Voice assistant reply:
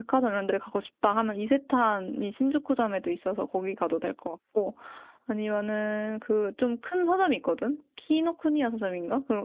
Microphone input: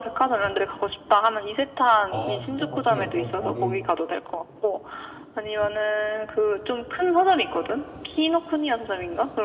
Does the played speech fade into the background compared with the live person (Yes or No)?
No